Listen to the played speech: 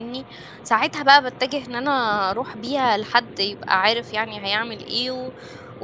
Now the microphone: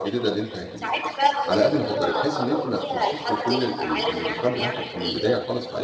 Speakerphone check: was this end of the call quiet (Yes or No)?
No